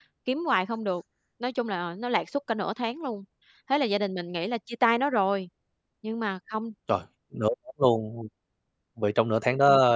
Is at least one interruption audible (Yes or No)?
No